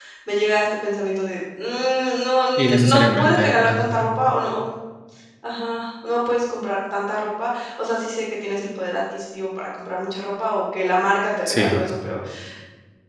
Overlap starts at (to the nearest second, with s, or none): 3 s